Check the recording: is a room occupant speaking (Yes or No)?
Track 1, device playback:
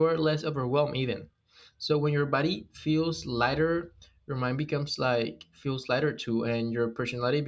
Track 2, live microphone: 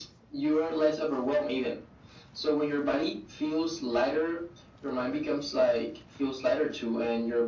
No